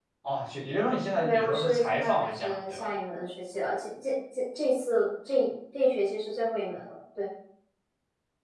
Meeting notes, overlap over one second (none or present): present